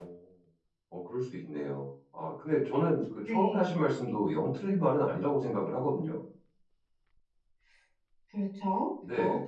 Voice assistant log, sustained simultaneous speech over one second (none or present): none